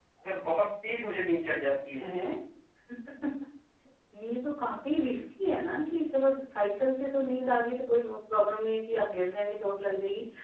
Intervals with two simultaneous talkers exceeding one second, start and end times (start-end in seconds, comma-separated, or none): none